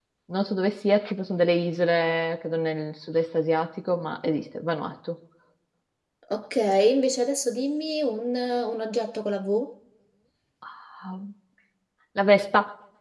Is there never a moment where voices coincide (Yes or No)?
Yes